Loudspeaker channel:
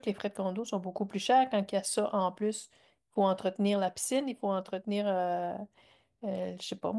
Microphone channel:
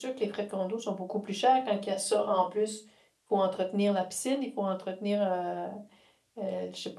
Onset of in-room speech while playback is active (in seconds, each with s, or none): none